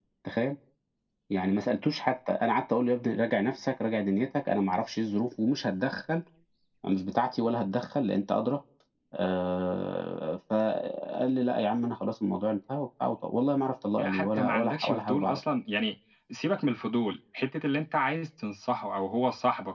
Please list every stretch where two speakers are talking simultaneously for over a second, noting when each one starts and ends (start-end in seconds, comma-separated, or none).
14.0-15.4